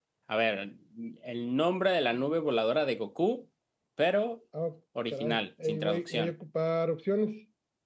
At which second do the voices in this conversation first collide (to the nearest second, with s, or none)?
5 s